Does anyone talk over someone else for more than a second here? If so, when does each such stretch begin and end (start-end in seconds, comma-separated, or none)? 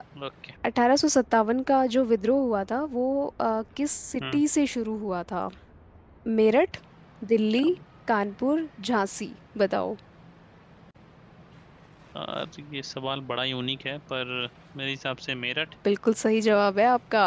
none